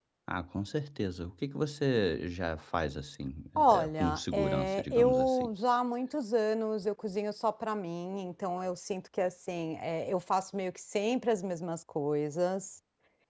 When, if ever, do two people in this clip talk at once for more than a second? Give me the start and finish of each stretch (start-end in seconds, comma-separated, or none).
3.6-5.5